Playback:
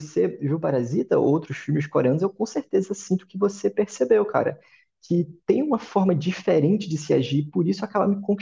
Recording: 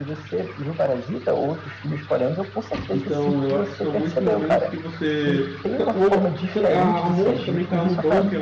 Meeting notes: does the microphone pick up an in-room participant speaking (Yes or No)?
Yes